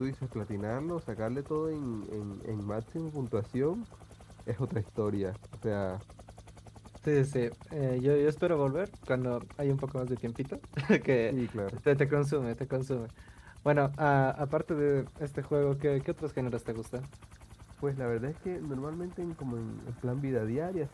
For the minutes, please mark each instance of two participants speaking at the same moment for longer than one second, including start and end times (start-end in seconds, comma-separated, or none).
none